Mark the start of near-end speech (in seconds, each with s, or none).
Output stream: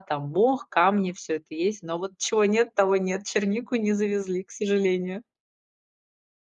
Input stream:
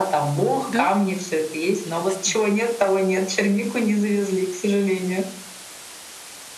0.7 s